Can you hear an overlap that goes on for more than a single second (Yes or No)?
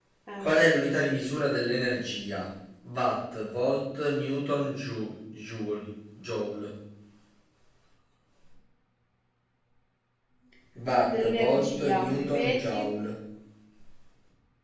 Yes